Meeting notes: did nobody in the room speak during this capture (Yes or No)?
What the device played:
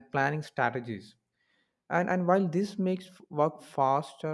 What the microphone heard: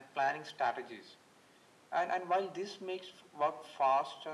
Yes